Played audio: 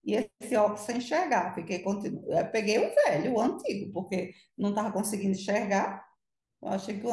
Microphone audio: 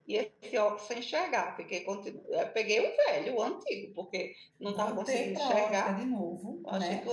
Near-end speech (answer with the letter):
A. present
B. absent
A